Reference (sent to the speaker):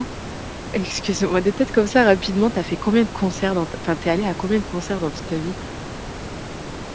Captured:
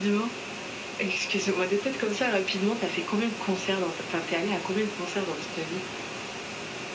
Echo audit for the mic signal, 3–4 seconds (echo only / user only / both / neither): echo only